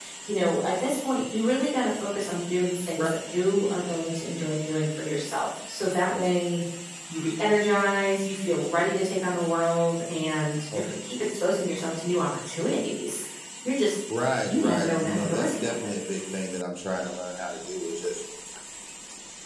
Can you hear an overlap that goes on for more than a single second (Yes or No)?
Yes